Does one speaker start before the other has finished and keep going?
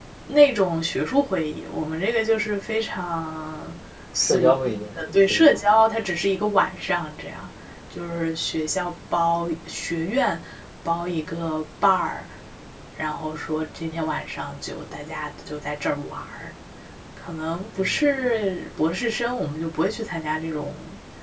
Yes, from 4.2 s

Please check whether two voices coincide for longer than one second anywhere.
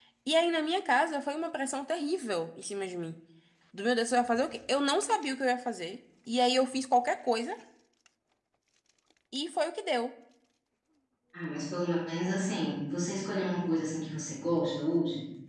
No

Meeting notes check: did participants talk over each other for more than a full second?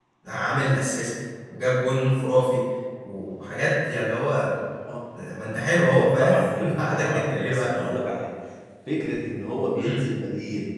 Yes, from 5.8 s

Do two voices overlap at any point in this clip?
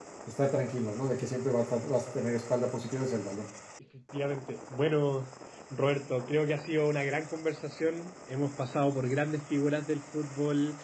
No

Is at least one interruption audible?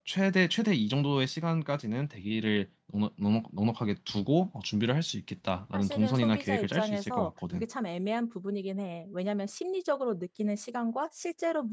Yes, from 5.7 s

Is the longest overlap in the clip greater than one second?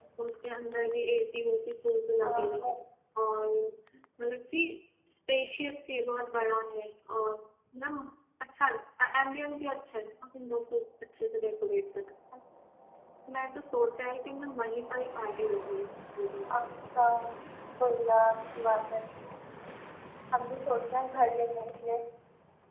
No

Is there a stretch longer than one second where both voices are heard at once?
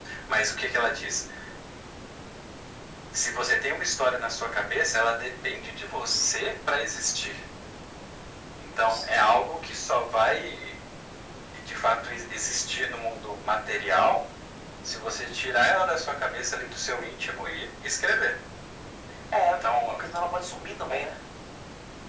No

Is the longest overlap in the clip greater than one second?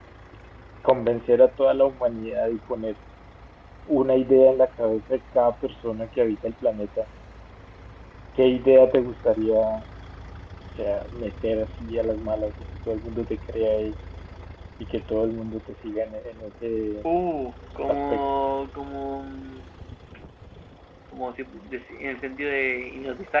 No

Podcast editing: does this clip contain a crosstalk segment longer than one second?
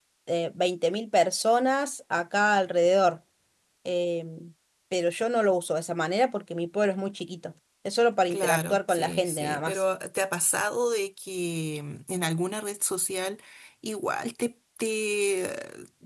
Yes, from 8.3 s

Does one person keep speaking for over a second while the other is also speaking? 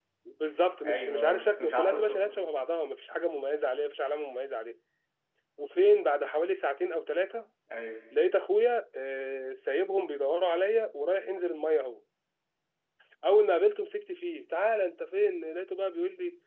Yes, from 0.8 s

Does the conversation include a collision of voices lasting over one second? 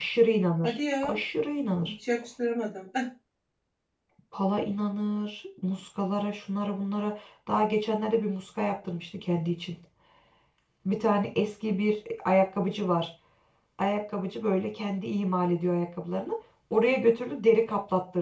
No

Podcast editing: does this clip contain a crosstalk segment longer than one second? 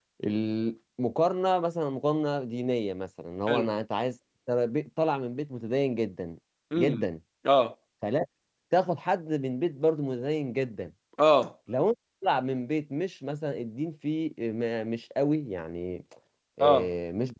No

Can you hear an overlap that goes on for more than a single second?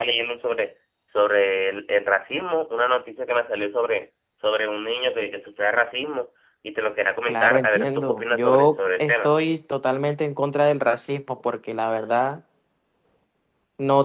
Yes, from 7.3 s

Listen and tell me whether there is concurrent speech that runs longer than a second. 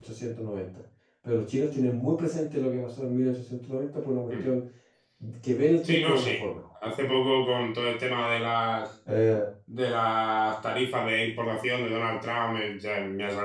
No

